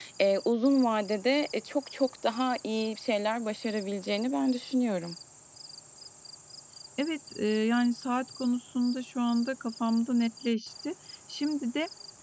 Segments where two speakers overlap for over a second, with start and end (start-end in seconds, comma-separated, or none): none